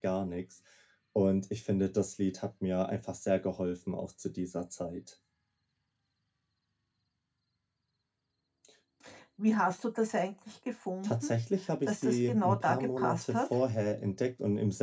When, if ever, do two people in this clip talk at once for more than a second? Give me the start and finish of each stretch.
11.9-13.5

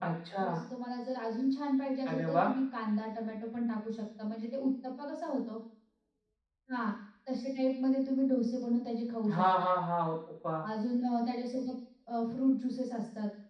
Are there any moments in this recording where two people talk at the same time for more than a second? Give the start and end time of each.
none

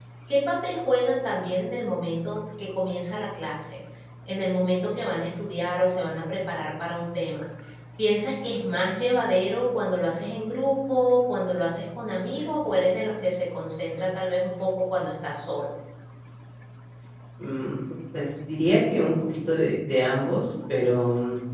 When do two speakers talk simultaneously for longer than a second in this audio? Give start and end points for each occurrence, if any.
none

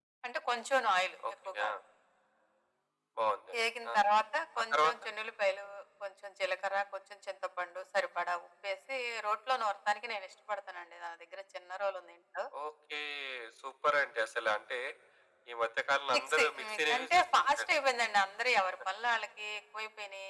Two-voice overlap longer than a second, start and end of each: 16.1-17.6

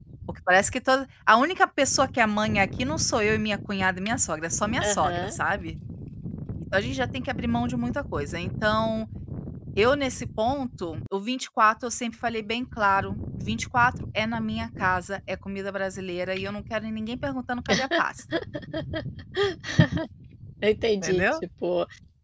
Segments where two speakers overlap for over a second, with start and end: none

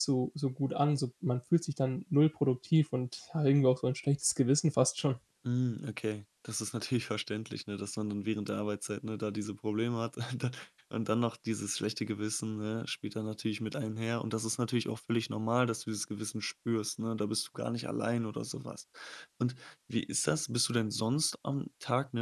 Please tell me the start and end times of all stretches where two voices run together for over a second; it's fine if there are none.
none

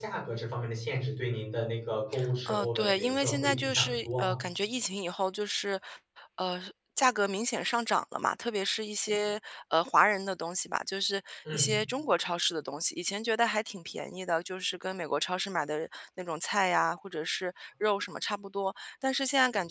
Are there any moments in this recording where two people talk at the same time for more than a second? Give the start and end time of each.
2.5-4.4

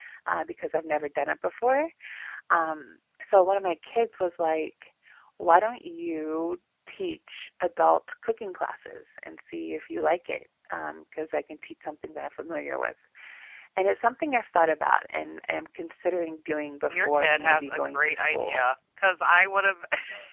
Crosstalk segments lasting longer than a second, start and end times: 16.9-18.7

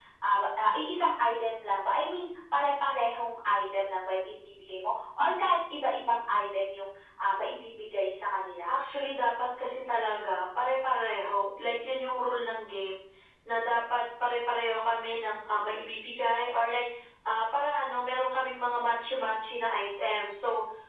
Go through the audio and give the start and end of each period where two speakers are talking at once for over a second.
none

